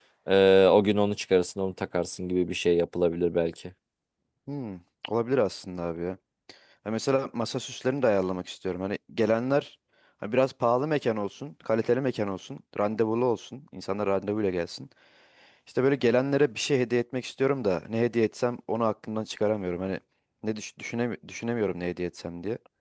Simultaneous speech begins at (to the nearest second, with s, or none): none